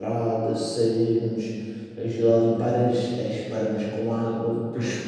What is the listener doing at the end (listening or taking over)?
listening